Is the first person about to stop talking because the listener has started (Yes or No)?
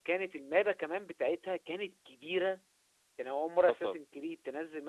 No